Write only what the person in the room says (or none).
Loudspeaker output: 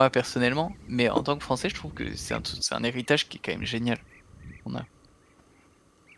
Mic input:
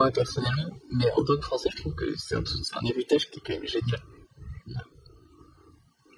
none